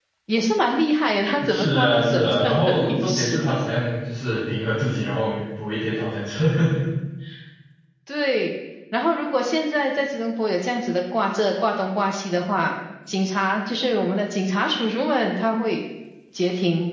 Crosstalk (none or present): present